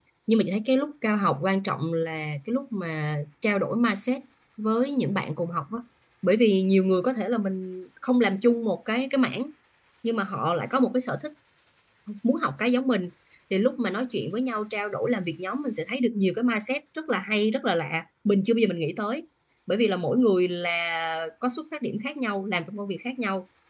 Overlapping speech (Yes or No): No